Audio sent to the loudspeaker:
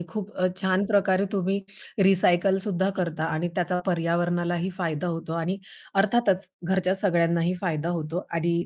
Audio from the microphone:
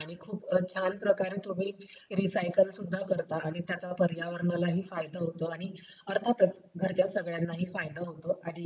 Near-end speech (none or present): none